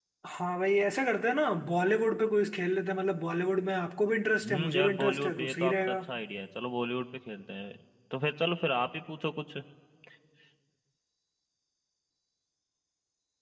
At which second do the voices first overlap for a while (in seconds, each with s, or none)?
4.4 s